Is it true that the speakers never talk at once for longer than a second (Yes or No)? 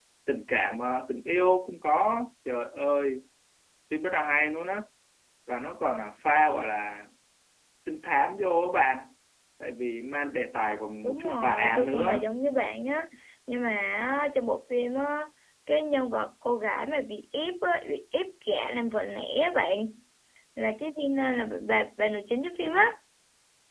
No